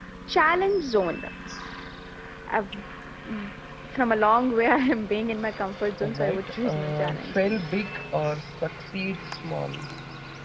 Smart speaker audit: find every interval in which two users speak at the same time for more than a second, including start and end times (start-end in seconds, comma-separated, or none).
6.0-7.6